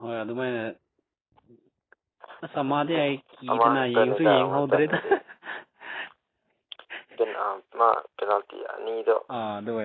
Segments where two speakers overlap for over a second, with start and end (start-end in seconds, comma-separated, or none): 3.5-5.0